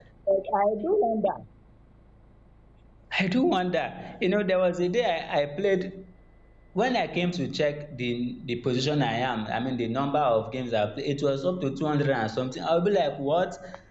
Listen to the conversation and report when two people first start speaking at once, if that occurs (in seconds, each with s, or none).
none